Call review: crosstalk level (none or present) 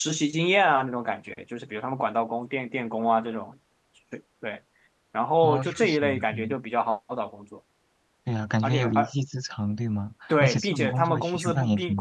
present